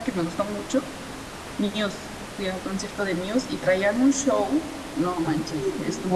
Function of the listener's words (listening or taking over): listening